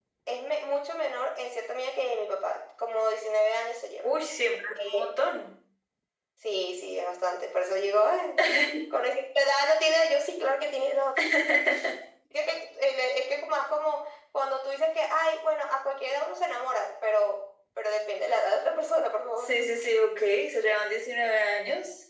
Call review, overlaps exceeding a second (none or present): none